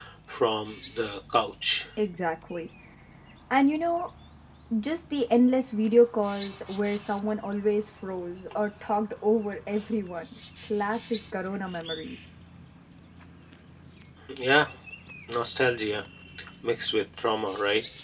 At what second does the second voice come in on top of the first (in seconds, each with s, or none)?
none